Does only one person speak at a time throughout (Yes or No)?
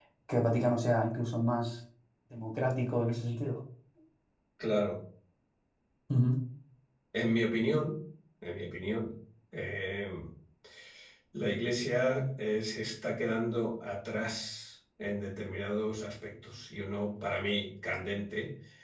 Yes